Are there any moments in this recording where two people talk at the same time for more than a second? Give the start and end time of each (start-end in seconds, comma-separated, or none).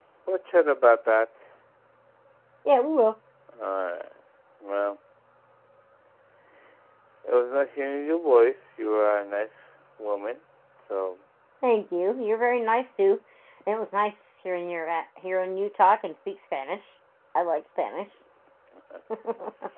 none